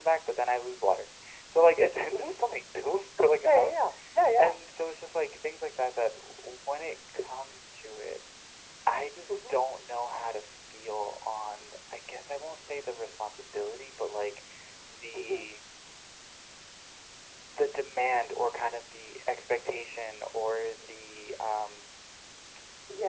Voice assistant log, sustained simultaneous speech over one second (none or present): none